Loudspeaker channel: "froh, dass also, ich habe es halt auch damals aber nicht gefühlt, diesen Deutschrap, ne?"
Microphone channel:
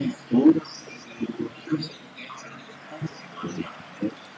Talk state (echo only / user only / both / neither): echo only